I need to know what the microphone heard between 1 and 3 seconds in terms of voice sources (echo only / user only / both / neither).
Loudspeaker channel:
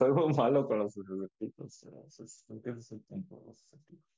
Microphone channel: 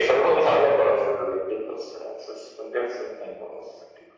echo only